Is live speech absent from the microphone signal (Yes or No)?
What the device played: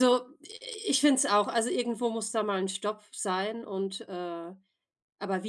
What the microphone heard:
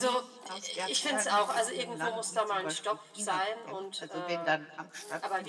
No